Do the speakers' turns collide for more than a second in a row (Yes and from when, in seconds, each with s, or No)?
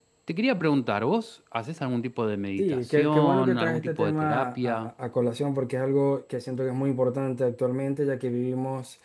Yes, from 2.6 s